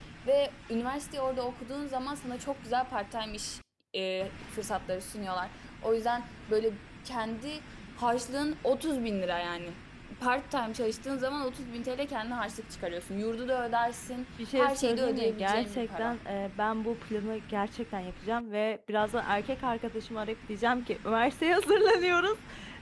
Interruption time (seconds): 14 s

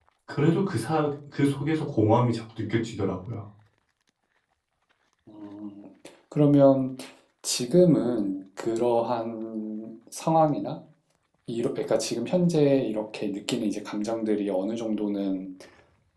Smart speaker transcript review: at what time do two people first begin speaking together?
none

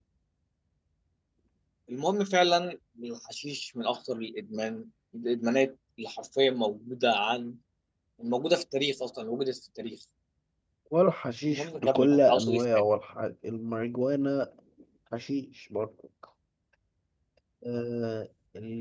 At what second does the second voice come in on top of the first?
11 s

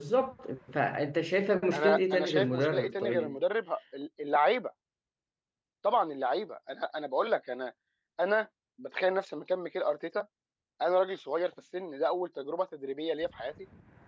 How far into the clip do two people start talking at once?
2 s

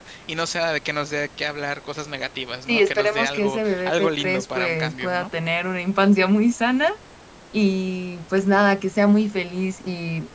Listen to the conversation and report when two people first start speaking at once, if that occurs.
3 s

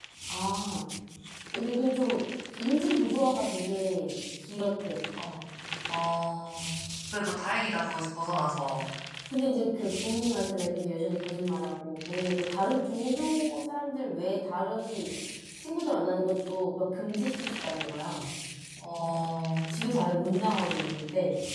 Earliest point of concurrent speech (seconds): none

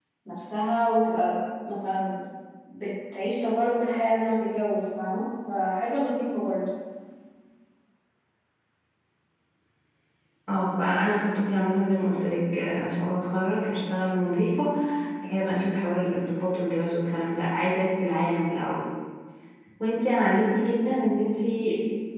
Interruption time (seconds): none

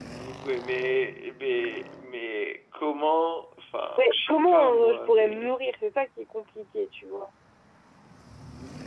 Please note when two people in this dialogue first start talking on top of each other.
4 s

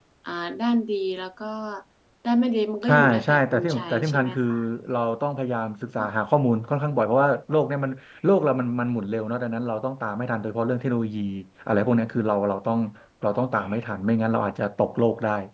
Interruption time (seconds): 3 s

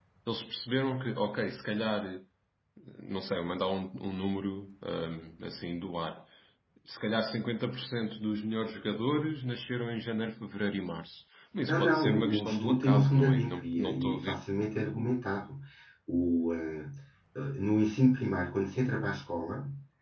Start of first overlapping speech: 12 s

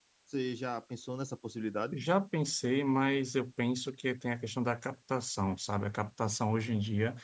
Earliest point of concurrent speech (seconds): none

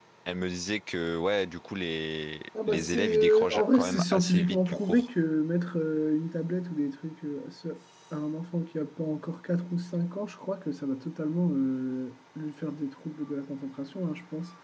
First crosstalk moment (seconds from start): 3 s

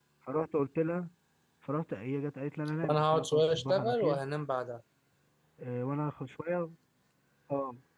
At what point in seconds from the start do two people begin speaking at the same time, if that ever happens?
3 s

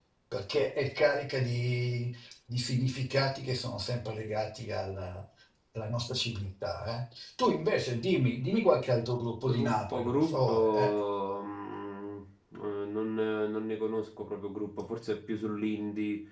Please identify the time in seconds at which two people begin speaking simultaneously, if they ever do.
9 s

